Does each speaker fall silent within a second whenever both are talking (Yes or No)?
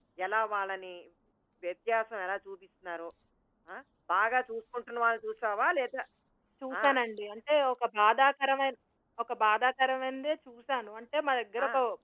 Yes